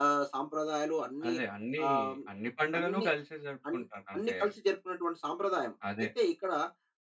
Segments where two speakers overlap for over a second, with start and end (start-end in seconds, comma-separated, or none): none